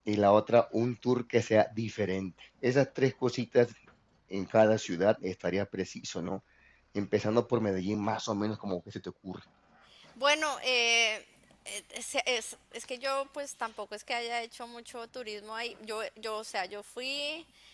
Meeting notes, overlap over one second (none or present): none